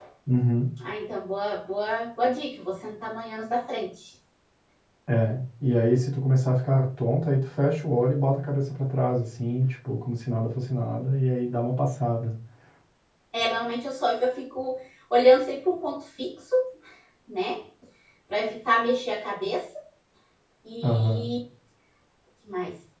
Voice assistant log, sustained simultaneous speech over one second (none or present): none